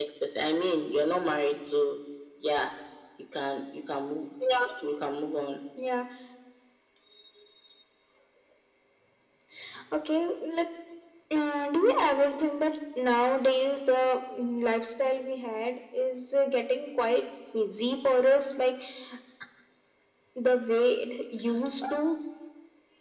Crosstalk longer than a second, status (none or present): none